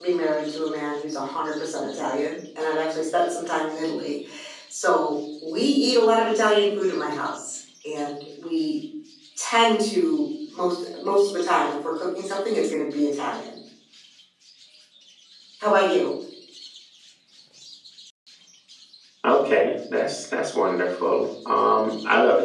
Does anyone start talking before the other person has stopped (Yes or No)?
No